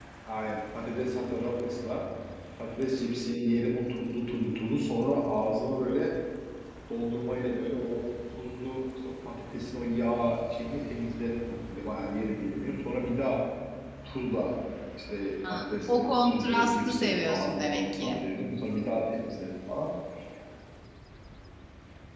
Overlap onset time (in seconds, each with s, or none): 15.5 s